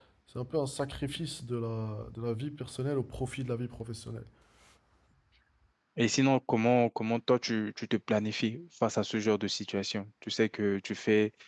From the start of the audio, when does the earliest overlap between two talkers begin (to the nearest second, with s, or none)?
none